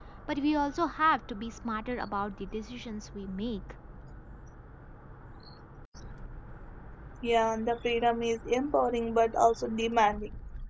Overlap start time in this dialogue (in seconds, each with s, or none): none